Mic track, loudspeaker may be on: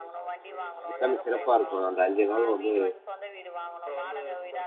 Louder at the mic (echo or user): user